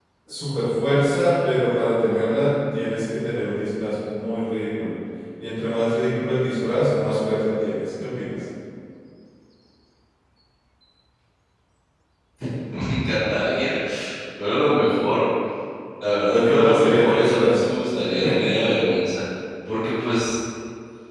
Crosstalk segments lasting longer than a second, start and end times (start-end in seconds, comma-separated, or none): 16.3-17.6